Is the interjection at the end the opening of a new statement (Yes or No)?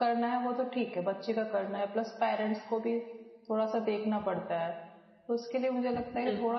No